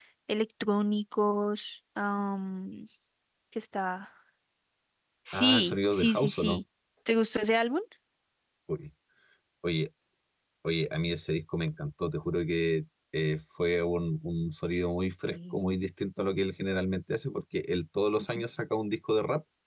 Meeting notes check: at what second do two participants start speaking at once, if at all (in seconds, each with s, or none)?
5.3 s